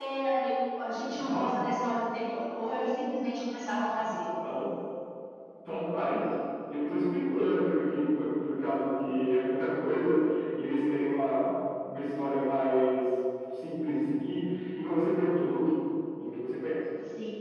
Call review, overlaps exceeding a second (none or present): none